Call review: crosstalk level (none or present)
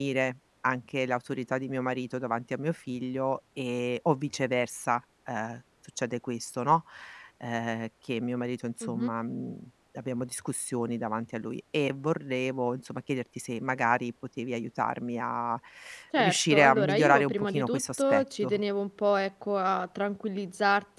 present